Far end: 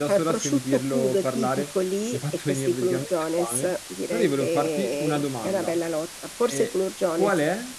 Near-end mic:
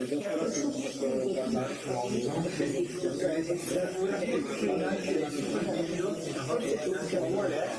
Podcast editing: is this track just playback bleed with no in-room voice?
No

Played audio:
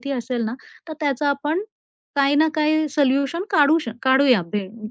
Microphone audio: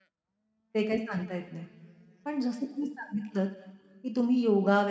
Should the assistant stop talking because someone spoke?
Yes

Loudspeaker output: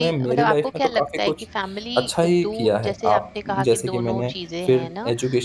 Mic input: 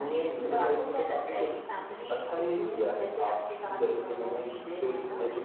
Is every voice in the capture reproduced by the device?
Yes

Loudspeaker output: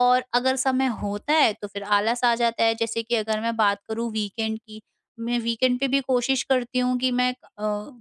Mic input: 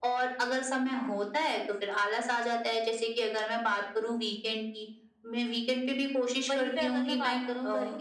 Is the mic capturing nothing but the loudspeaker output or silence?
No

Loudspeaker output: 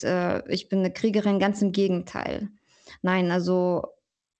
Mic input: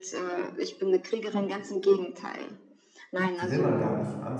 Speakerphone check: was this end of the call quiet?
No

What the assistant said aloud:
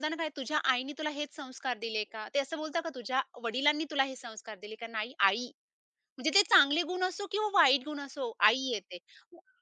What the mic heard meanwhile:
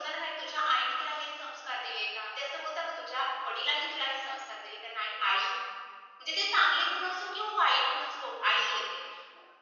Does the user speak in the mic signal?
No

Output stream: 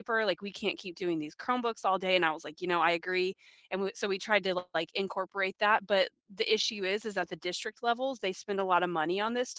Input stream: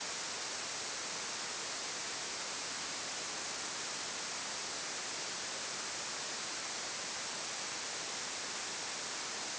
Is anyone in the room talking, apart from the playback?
No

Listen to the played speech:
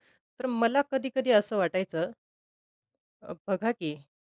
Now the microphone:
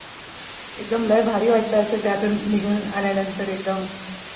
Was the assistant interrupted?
Yes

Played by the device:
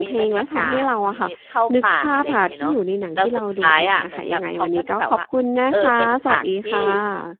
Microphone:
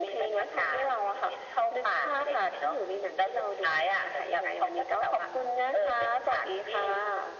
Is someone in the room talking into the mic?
No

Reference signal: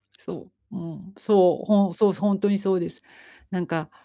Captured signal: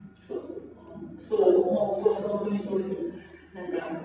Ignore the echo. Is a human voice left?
No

